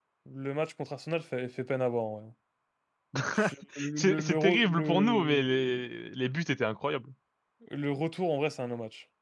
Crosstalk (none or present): present